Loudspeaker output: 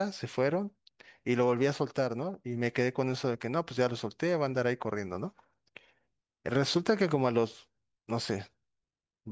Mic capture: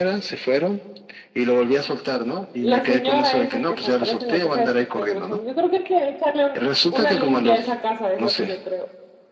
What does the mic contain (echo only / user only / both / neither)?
both